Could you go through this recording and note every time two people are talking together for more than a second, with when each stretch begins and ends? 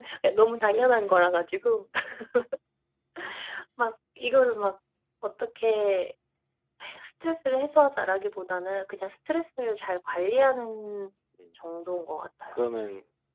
none

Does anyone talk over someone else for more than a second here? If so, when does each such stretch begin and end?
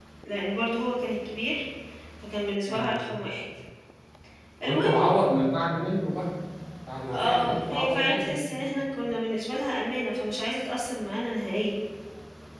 7.1-8.4

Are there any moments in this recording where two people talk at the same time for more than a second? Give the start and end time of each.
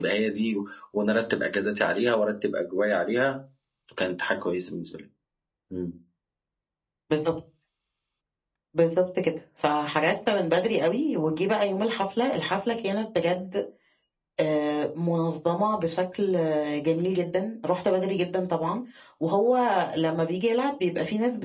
none

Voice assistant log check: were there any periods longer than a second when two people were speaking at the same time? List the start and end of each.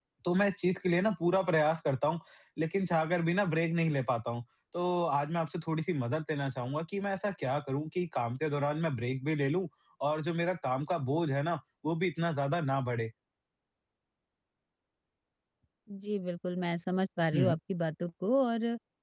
none

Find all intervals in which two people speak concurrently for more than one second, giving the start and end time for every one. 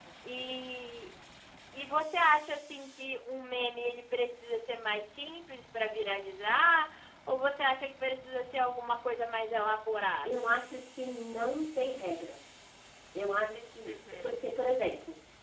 none

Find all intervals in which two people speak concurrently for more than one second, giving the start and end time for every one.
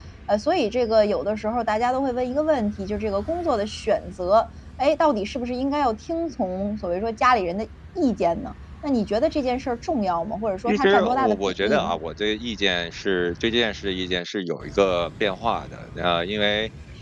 10.7-11.9

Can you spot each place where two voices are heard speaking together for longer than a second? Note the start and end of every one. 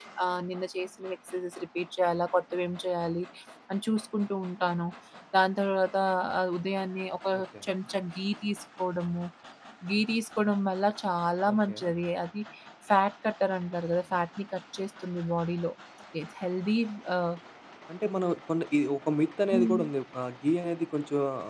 none

